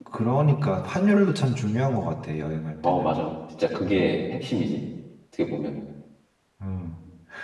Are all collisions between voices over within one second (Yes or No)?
Yes